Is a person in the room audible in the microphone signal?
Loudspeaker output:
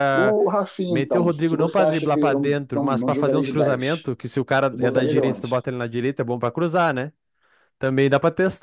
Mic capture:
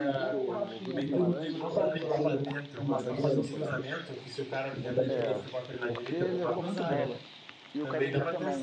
Yes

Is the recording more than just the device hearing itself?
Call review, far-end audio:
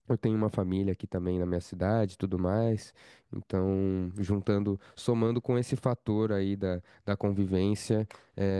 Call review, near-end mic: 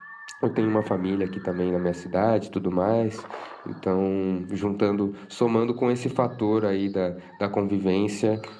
No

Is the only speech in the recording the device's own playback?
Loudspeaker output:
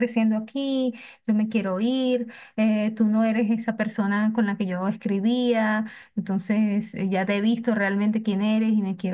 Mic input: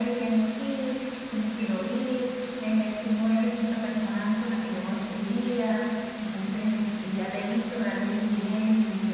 Yes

